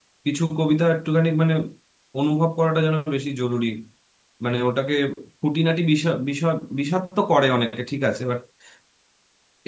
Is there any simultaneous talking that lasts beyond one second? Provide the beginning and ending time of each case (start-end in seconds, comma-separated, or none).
none